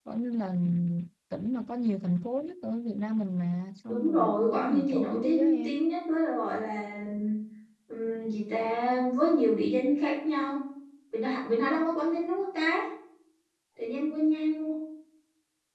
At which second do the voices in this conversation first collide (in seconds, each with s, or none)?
3.9 s